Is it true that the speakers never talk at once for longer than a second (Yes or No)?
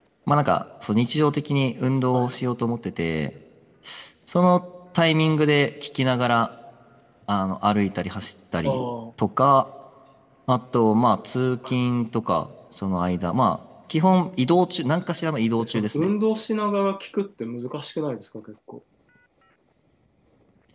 Yes